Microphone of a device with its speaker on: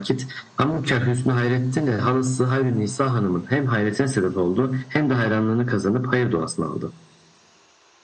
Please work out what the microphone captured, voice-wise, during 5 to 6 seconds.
echo only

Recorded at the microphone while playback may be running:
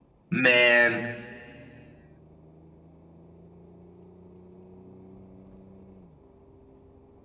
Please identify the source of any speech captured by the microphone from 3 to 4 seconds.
neither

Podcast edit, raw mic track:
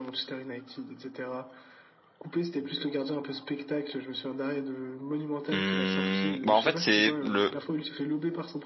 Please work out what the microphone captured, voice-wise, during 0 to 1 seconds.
echo only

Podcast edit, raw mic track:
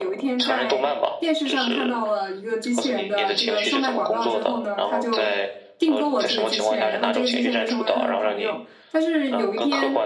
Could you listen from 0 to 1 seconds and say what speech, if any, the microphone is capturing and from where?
both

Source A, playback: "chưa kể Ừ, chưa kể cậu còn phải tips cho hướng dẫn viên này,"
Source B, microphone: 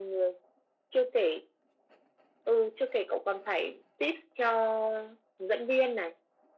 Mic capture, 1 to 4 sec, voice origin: echo only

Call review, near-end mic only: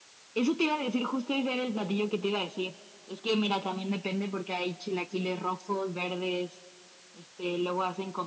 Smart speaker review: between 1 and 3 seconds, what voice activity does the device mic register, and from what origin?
echo only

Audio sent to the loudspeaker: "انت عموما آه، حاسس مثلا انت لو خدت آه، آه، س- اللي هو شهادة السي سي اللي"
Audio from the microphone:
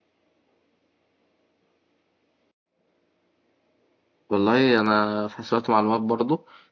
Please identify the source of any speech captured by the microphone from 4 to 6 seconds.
user only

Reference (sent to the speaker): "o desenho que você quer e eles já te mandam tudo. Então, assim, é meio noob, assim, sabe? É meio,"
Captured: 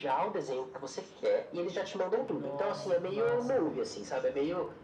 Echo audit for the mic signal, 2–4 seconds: both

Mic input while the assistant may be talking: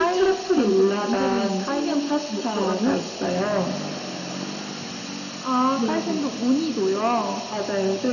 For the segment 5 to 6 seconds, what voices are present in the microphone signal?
echo only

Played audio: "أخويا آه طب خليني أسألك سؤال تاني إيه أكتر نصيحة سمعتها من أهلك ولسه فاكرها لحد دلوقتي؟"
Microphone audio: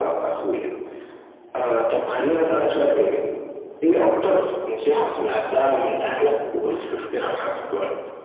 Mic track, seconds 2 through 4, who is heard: echo only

